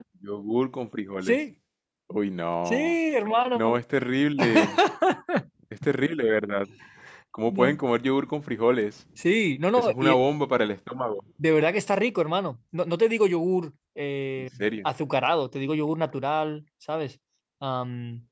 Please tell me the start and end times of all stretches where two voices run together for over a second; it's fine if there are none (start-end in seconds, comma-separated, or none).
none